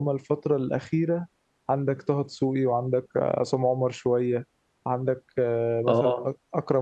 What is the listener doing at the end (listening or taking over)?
listening